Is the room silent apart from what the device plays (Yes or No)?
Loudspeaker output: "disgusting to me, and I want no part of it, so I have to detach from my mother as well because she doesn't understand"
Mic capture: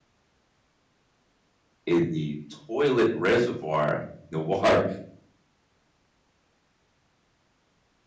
No